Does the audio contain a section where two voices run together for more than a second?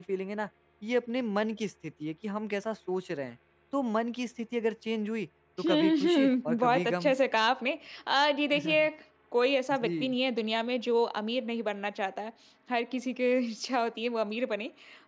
Yes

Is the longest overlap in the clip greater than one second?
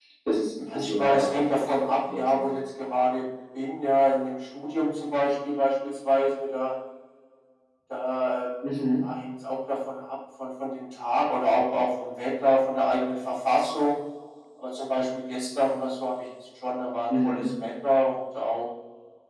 Yes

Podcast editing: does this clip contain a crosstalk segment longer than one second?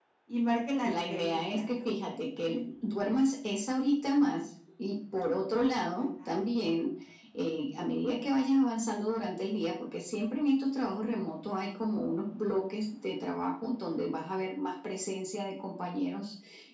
Yes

